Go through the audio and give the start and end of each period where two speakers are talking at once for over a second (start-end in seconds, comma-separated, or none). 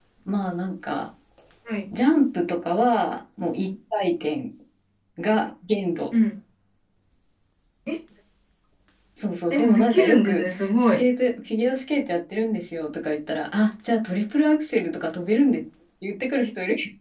9.5-11.0